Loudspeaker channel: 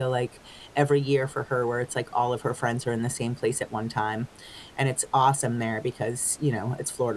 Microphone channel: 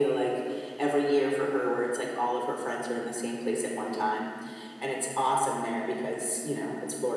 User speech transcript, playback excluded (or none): none